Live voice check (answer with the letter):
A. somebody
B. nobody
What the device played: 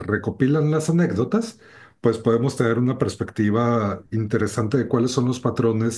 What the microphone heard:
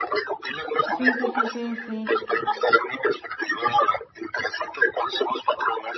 A